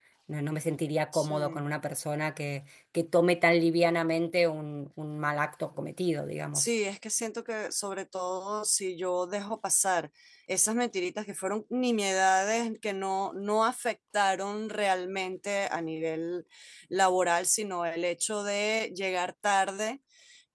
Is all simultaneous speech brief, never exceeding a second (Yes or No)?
Yes